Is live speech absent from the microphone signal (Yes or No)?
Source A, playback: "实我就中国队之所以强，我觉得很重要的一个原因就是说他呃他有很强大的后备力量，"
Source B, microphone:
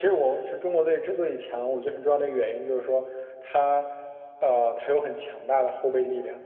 Yes